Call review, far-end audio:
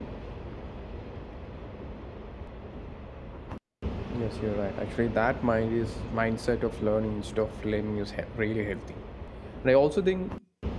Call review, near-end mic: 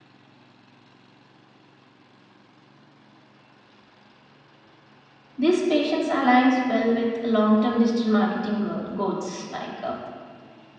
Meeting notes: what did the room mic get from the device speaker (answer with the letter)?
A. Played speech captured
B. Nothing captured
B